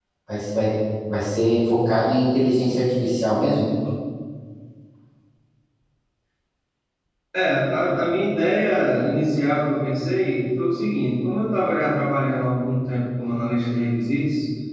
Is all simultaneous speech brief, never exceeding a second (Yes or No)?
Yes